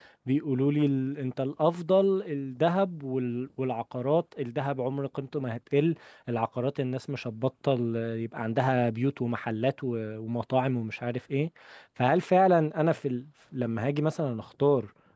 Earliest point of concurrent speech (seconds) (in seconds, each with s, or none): none